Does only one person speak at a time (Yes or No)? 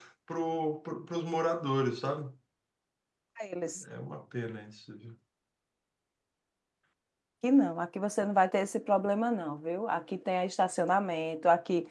Yes